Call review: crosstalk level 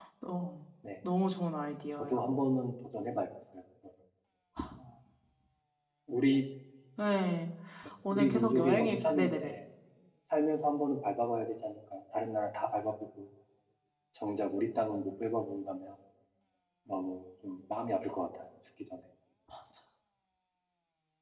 present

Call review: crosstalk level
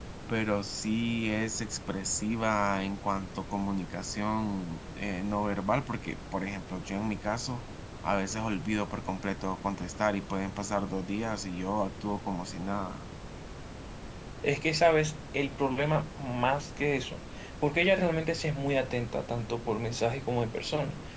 none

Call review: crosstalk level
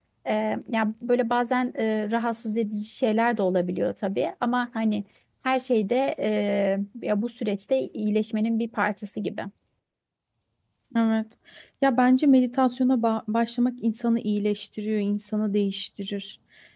none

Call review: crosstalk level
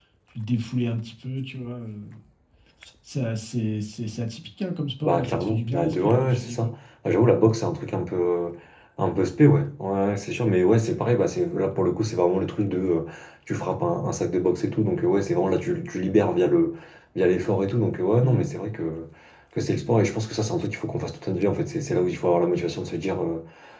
present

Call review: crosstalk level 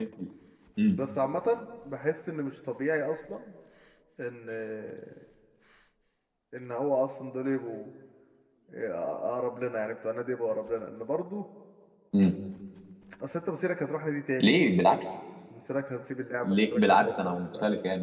present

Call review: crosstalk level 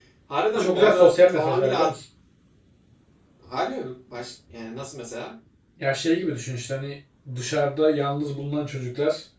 present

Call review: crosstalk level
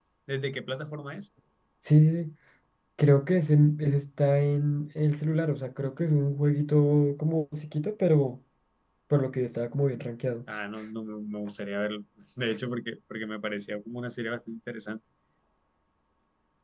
none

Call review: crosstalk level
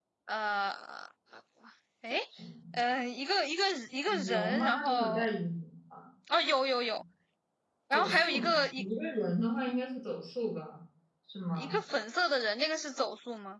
present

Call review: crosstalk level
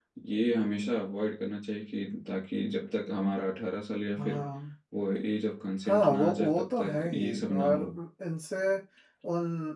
present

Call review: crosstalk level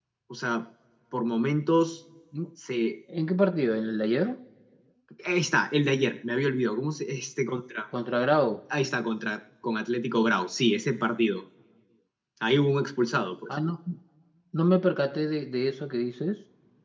none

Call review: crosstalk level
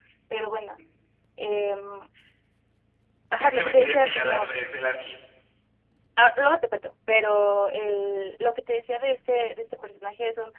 present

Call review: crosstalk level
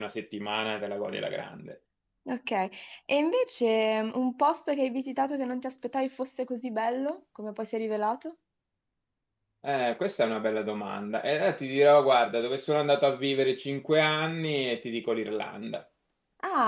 none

